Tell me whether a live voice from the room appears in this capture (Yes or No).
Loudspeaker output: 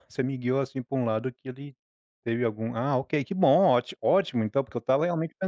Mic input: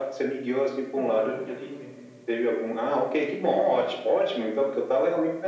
Yes